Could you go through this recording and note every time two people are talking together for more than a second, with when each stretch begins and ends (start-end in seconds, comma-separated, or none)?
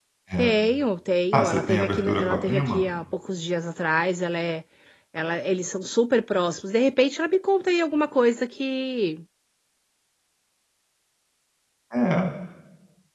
1.3-2.8